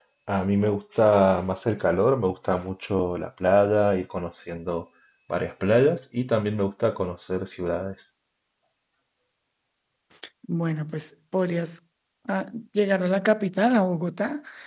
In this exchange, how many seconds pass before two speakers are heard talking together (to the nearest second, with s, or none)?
none